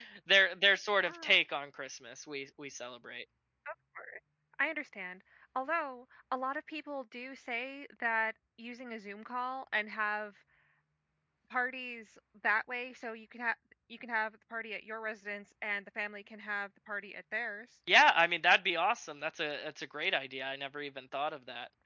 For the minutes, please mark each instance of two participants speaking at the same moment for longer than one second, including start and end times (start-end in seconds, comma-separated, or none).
none